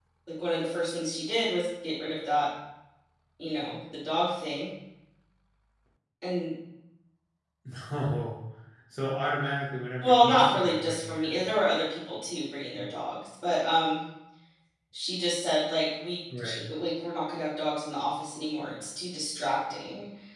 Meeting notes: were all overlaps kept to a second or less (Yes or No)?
No